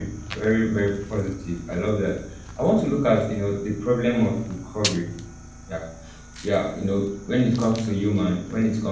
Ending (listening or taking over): listening